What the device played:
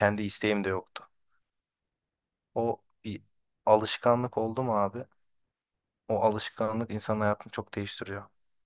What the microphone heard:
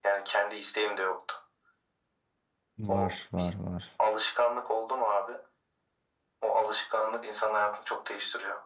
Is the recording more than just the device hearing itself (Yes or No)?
Yes